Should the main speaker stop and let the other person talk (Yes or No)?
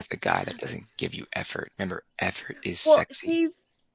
Yes